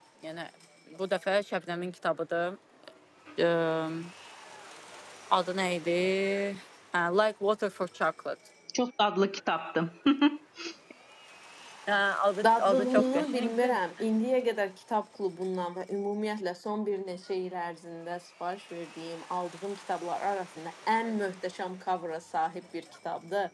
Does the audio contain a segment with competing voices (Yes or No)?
Yes